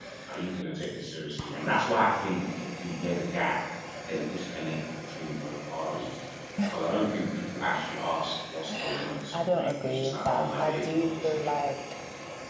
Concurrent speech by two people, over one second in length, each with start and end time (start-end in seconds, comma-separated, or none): 8.7-11.5